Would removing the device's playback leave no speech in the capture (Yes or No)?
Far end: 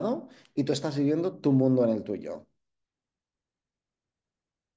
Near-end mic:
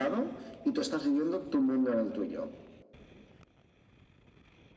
Yes